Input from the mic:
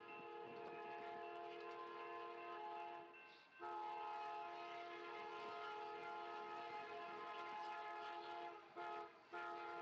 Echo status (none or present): none